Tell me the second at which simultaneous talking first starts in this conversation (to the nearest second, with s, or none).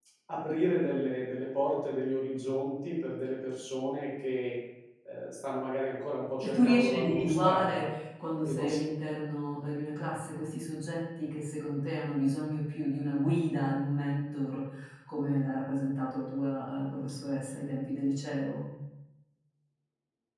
6 s